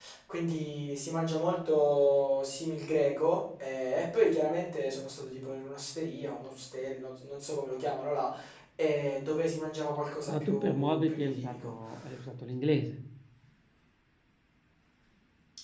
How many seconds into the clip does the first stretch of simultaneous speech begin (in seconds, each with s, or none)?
10.3 s